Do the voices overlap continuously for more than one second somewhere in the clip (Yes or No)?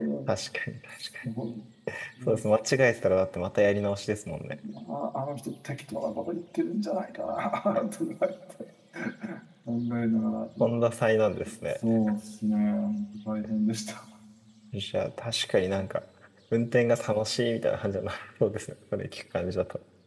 No